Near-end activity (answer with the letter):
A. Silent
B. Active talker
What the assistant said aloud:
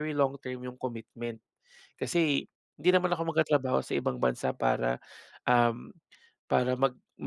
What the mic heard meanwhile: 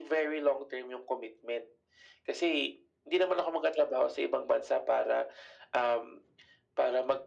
A